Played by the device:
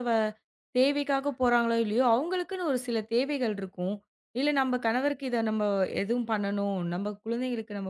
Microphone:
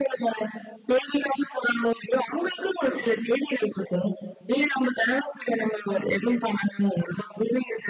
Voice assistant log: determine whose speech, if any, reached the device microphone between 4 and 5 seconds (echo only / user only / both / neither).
echo only